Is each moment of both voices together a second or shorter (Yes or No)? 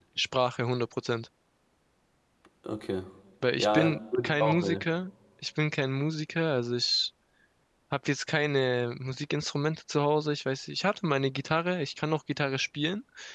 No